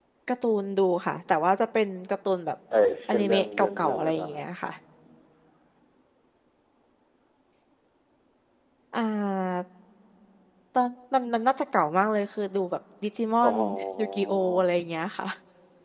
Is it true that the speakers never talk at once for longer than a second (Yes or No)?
No